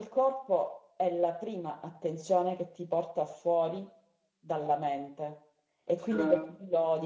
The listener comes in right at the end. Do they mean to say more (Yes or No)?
No